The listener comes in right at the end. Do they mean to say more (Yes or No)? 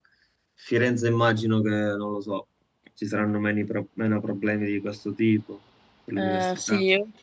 Yes